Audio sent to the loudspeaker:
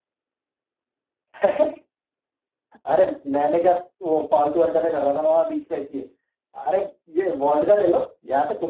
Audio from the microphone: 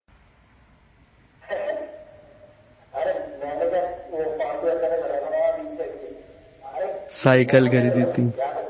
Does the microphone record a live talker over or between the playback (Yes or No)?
Yes